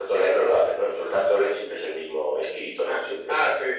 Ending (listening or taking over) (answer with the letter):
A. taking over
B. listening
A